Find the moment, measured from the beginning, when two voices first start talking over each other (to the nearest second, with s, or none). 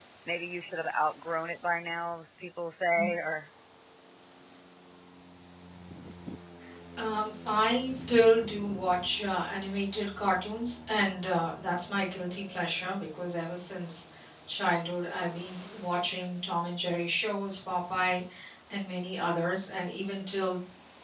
none